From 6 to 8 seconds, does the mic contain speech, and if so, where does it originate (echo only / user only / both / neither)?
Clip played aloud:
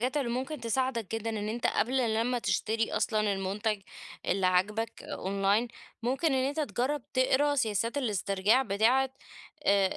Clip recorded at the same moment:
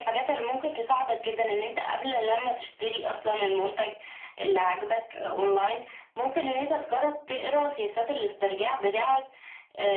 echo only